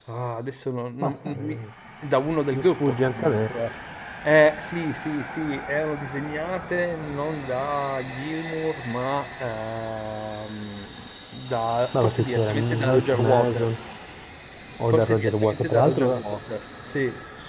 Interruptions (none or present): present